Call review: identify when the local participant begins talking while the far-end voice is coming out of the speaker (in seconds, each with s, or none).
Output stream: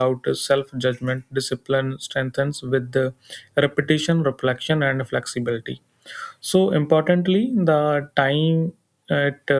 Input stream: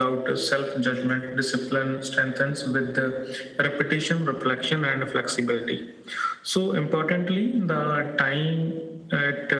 none